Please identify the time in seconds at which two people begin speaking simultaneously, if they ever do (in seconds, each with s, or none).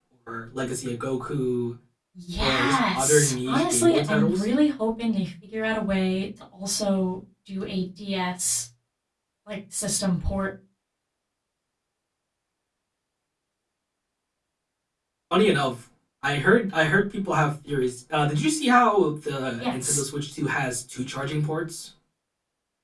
2.4 s